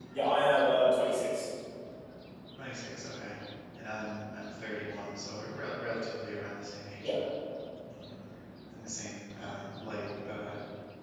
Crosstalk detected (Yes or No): No